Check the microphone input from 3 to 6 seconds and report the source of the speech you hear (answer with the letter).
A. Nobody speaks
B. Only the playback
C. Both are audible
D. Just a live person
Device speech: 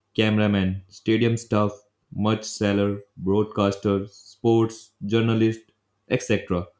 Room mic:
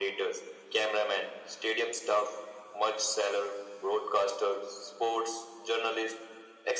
B